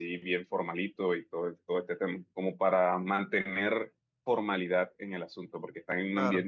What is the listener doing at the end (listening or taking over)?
listening